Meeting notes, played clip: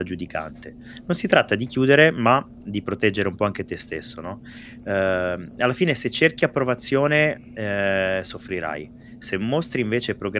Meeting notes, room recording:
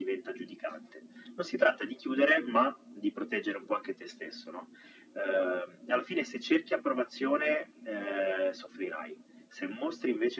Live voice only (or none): none